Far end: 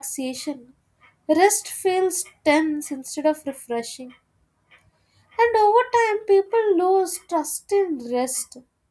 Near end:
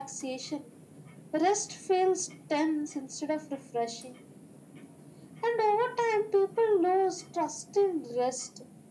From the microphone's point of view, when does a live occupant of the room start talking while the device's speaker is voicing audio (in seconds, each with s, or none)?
none